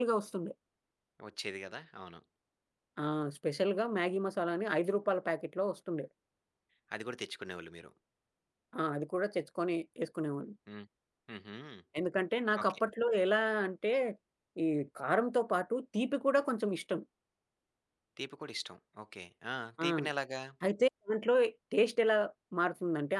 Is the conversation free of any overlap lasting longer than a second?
Yes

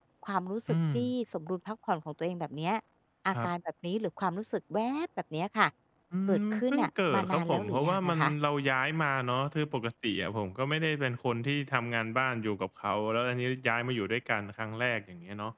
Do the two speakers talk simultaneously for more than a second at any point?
Yes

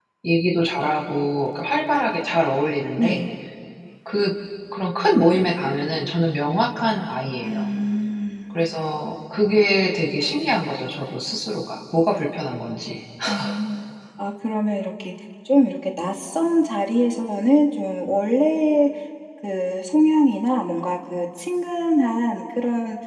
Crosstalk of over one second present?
No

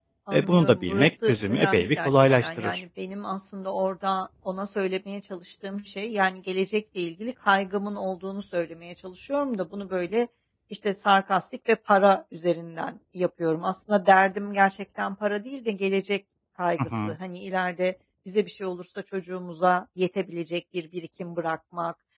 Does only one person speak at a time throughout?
No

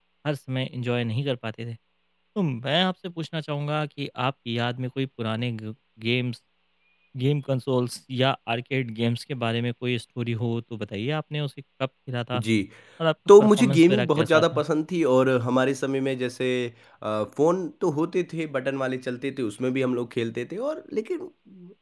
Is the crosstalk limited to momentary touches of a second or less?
No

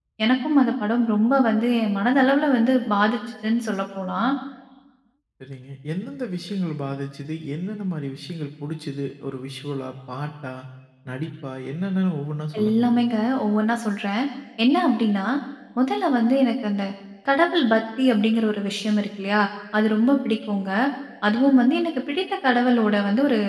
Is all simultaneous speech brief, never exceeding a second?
Yes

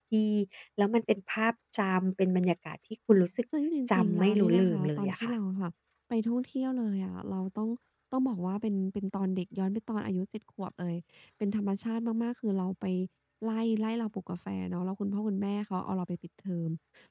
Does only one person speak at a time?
No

